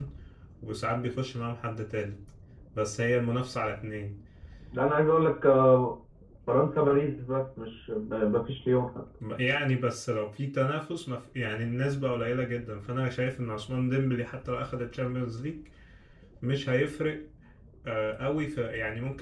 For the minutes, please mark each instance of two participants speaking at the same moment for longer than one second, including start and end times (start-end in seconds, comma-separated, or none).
none